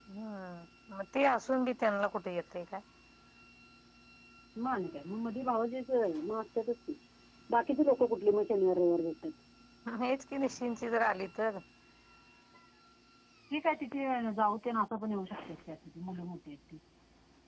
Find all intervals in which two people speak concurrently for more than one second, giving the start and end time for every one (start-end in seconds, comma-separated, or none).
none